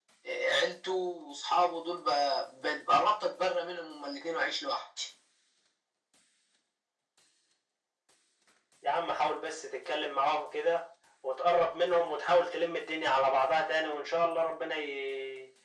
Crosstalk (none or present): none